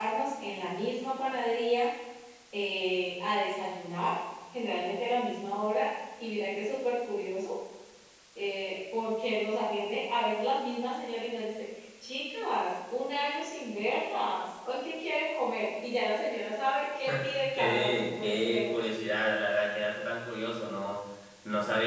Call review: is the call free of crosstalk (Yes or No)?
No